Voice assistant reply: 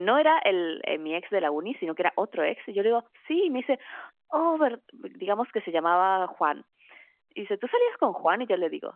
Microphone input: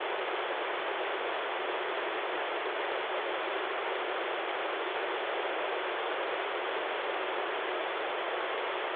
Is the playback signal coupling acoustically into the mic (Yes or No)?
No